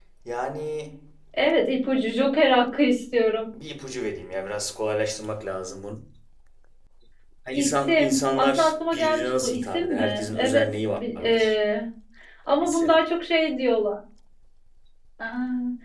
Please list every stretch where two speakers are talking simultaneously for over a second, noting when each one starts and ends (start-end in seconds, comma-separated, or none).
7.5-11.5